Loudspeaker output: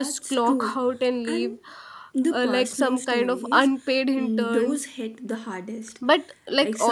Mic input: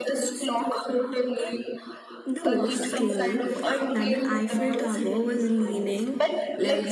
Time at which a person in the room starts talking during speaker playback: 2.4 s

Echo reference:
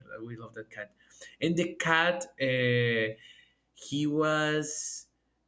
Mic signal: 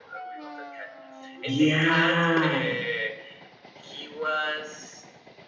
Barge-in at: 1.5 s

